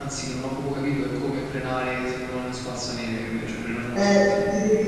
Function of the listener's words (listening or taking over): taking over